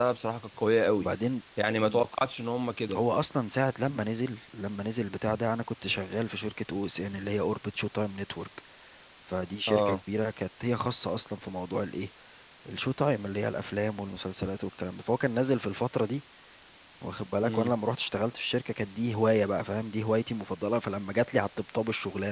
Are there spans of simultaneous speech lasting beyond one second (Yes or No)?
No